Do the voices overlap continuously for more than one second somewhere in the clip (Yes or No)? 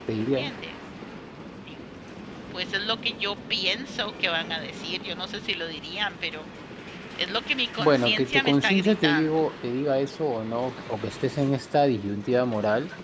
Yes